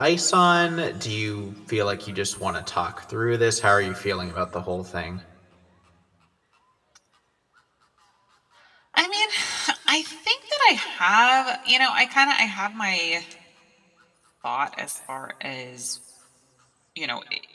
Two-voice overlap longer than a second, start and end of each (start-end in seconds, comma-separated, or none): none